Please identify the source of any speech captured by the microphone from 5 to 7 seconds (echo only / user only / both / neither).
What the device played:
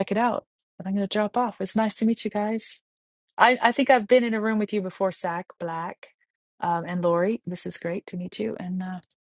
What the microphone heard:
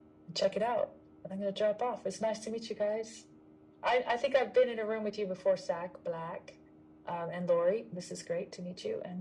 echo only